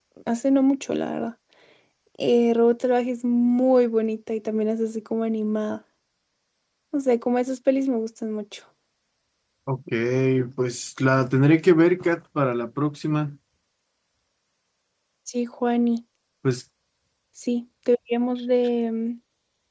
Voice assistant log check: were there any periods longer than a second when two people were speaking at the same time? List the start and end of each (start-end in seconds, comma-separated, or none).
none